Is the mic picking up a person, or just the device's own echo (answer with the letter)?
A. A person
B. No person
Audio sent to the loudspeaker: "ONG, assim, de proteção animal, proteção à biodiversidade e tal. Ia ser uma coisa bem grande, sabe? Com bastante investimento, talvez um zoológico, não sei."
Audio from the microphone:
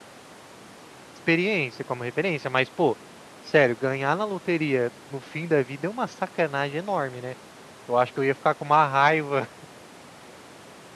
A